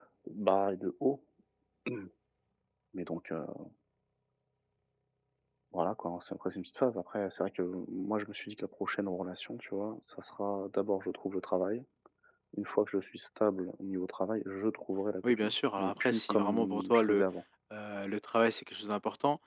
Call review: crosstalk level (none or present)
present